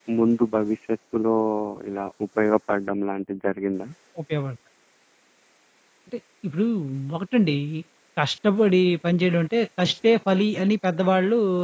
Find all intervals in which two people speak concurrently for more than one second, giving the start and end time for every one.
none

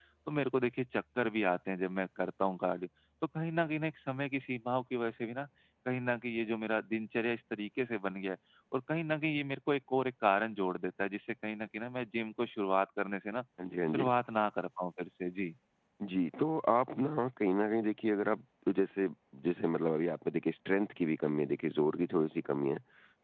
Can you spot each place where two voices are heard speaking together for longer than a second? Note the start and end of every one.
none

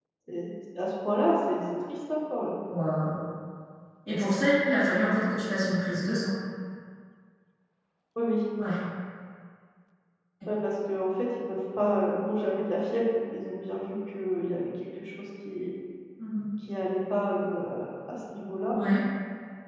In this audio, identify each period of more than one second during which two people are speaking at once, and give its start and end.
none

